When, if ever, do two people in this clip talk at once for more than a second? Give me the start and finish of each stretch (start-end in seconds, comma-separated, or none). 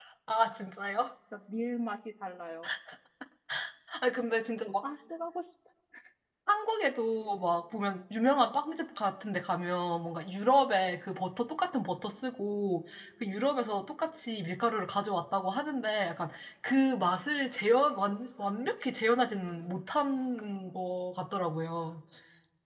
none